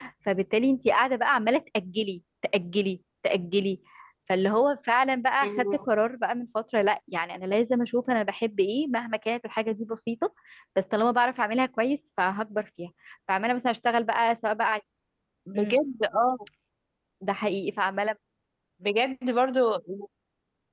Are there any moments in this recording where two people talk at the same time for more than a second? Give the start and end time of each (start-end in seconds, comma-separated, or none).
none